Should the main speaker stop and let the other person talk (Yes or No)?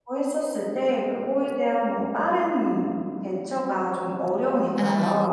Yes